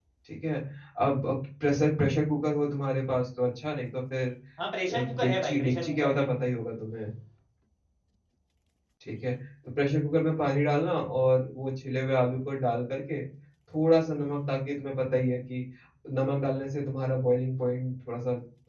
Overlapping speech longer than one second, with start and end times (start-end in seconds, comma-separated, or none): 5.0-6.3